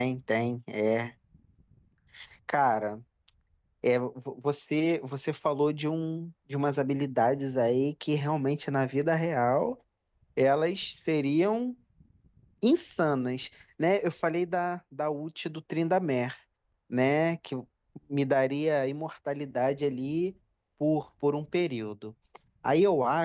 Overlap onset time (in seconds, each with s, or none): none